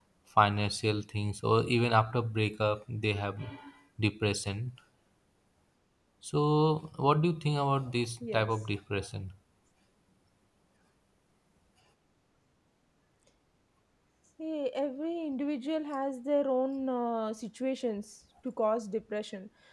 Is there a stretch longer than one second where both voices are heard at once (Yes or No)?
No